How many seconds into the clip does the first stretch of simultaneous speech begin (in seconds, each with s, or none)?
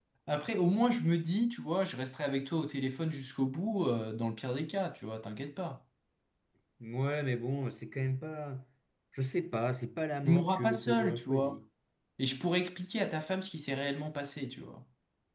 10.2 s